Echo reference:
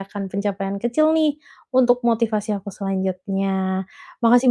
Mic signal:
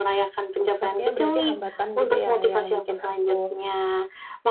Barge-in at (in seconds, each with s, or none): 0.6 s